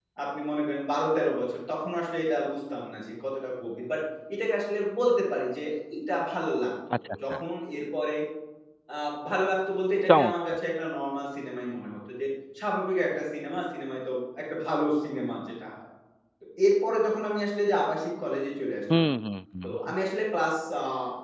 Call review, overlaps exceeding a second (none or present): none